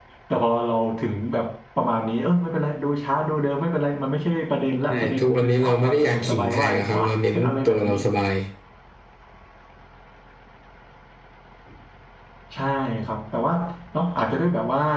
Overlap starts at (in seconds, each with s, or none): 4.9 s